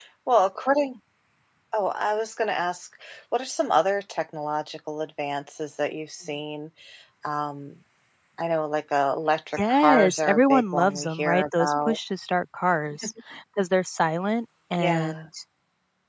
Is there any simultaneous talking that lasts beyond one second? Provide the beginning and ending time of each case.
9.6-12.0

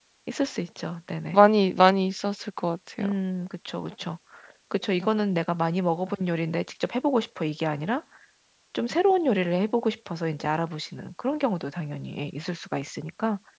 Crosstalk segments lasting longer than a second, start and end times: none

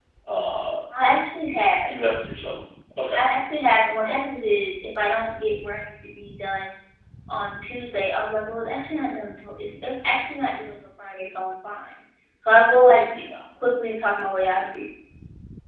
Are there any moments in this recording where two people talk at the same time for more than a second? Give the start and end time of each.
none

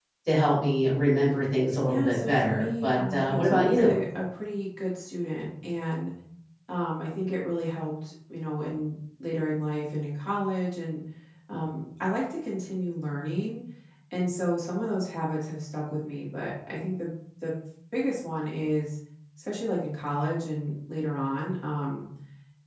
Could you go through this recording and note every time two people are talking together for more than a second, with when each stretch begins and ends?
1.9-4.0

